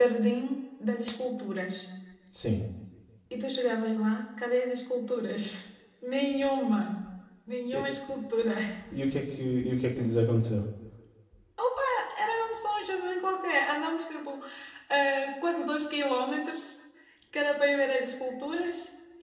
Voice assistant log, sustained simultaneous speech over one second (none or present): none